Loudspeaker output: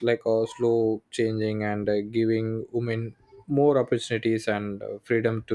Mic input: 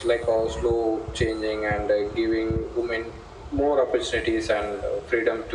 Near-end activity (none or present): none